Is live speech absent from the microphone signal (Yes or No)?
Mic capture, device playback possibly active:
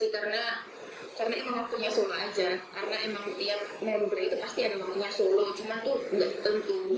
Yes